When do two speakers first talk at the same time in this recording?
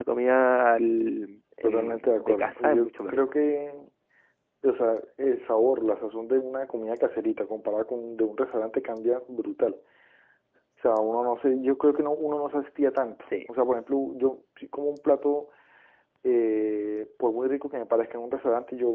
1.6 s

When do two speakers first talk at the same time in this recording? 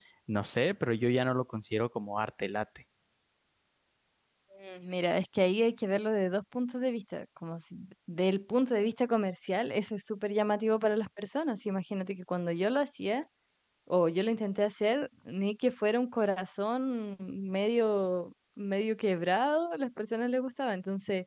none

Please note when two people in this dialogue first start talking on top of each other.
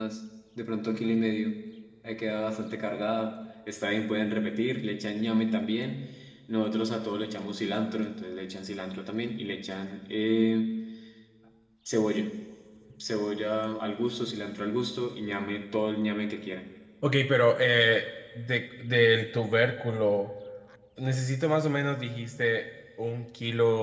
none

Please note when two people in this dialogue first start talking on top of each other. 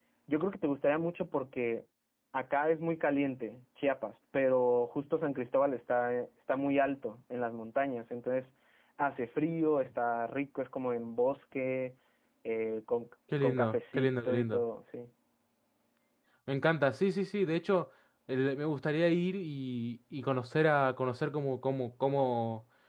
13.3 s

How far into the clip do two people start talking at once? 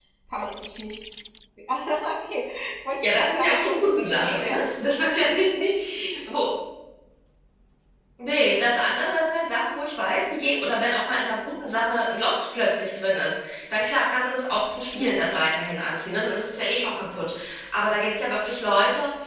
3.0 s

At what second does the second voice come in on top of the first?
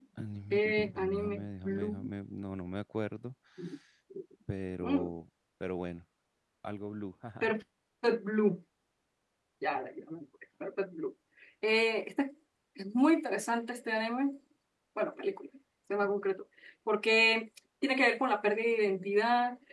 0.5 s

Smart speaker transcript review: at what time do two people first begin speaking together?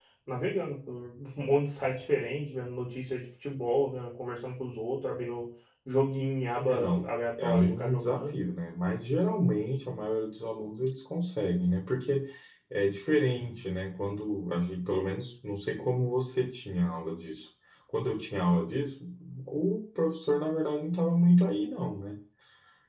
6.7 s

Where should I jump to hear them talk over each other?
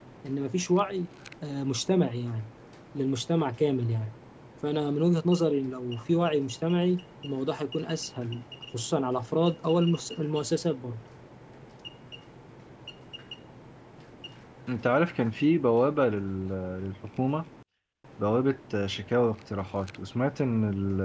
none

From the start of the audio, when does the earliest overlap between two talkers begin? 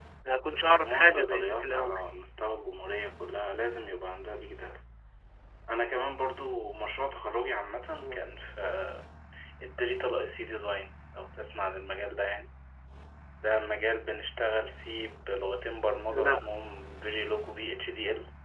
0.6 s

